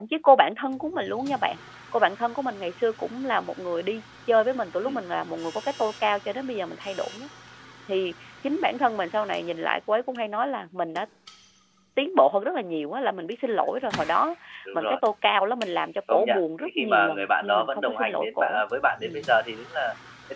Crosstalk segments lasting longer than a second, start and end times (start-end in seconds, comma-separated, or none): 16.1-18.6